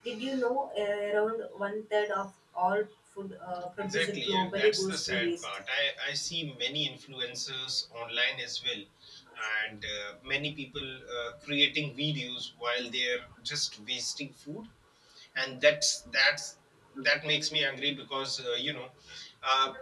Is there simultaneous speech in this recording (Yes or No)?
Yes